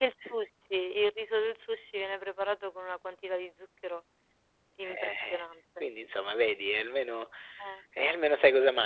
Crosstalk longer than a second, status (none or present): none